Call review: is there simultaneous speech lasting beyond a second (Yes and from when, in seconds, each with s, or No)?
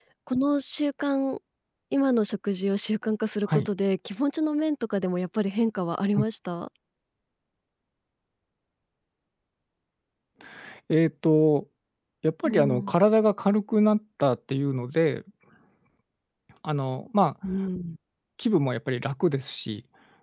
No